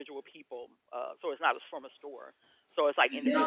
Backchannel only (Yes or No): No